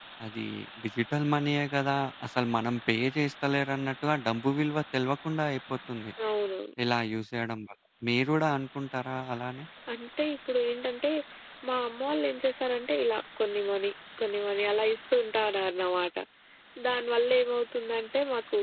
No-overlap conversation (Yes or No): Yes